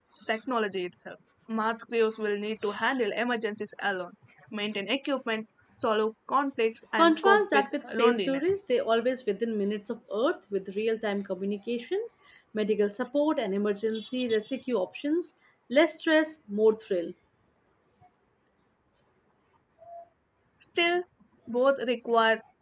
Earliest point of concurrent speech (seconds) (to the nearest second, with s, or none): 7 s